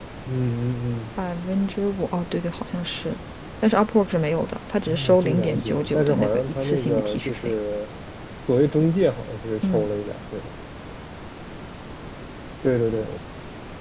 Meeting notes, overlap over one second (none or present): present